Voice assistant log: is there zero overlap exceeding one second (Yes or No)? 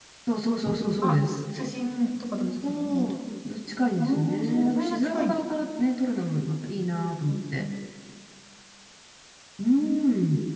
No